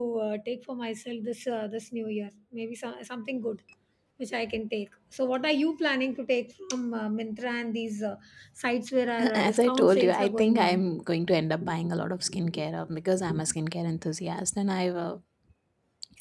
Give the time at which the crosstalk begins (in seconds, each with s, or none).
9.3 s